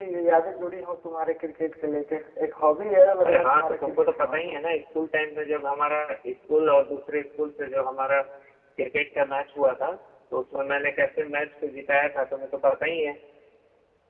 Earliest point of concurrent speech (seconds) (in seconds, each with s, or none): 3.2 s